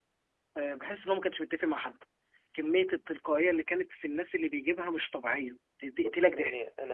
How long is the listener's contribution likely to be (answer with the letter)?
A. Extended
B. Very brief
A